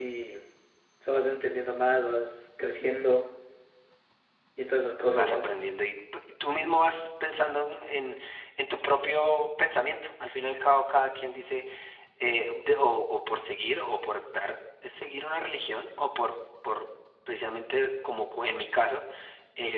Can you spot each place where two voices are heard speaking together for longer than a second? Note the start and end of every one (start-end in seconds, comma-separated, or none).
none